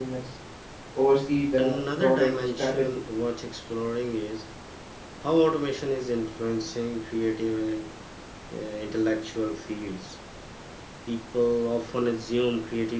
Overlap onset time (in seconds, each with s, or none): 1.6 s